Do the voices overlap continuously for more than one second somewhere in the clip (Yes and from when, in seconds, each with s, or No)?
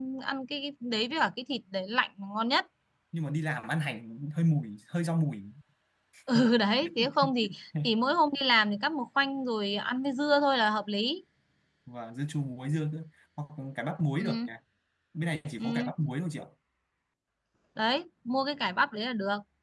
No